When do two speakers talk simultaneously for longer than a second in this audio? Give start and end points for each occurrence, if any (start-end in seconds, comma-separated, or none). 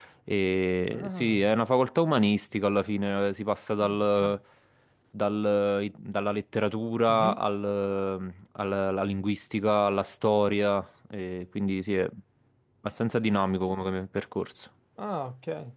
none